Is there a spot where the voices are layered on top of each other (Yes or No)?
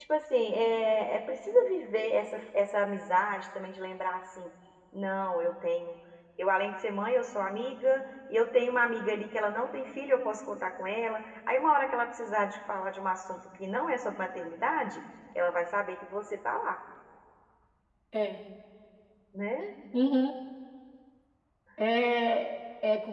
No